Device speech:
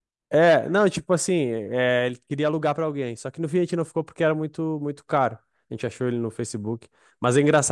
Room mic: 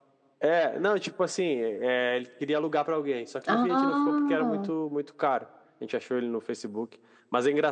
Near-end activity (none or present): present